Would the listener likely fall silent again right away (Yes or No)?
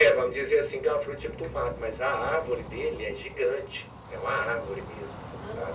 No